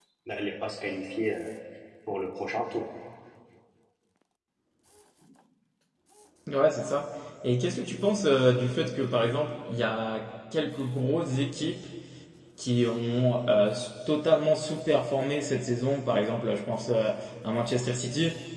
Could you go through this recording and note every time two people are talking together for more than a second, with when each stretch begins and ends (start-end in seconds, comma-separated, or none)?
none